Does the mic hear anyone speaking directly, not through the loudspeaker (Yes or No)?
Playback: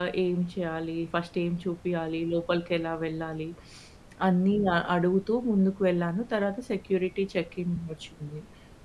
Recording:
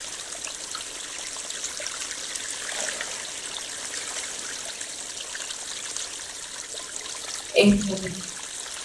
Yes